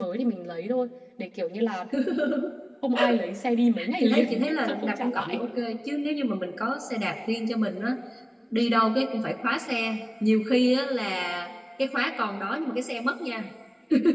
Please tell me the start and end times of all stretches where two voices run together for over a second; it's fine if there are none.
4.0-5.5

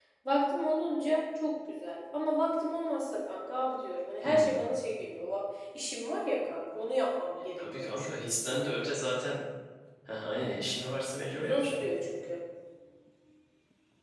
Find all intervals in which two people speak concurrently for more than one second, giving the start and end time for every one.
7.6-8.9

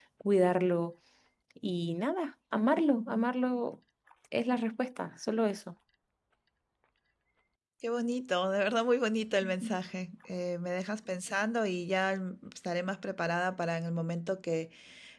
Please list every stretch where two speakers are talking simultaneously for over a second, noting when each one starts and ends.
none

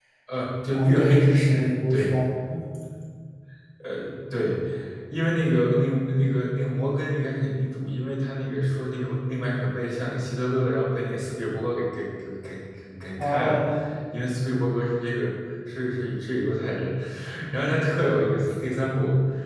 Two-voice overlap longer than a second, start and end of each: 0.7-2.1

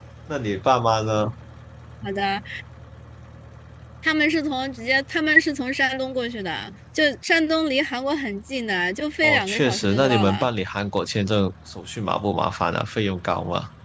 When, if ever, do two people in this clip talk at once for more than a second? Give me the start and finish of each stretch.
9.2-10.5

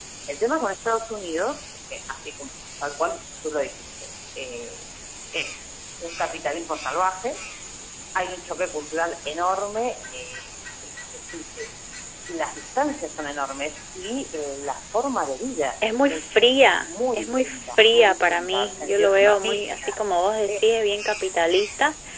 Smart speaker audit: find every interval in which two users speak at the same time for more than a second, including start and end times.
16.9-20.0

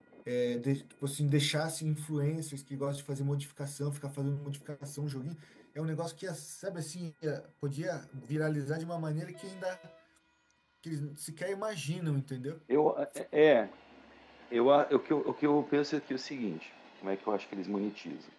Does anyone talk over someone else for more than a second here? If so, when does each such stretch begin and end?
none

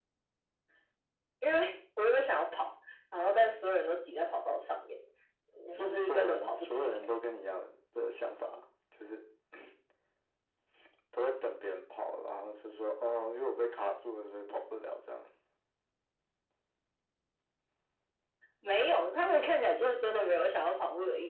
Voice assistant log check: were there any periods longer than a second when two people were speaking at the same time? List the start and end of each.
5.7-6.9

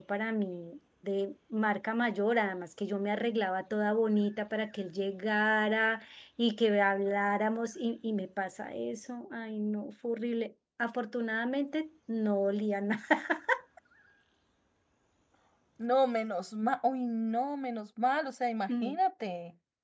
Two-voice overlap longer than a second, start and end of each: none

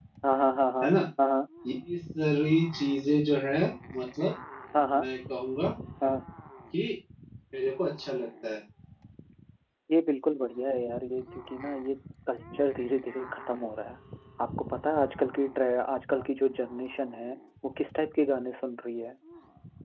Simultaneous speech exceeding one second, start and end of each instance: none

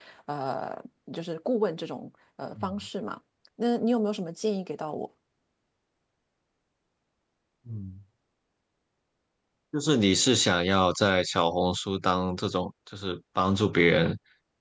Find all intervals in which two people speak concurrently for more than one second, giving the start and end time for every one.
none

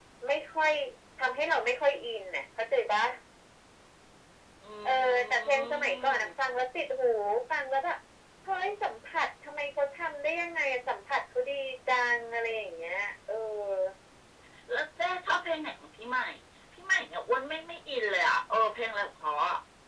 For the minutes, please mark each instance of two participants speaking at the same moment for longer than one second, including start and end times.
4.8-6.3

